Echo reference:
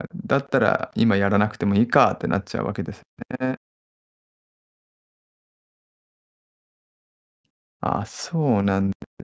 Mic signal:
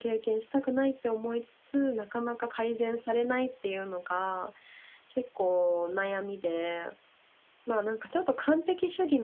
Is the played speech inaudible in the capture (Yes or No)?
Yes